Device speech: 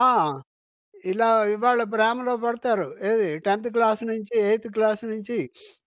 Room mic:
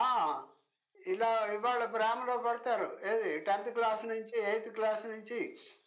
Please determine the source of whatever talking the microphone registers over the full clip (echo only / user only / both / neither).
echo only